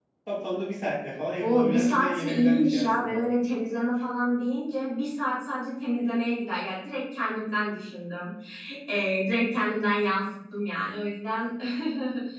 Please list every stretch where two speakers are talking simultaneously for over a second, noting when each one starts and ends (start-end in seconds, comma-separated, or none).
1.4-3.2